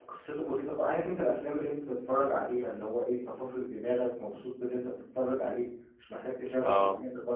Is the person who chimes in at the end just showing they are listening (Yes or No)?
Yes